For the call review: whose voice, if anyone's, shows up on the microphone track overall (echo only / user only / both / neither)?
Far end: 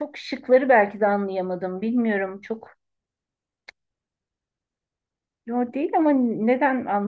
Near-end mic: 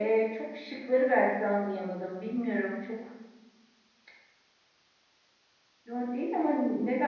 echo only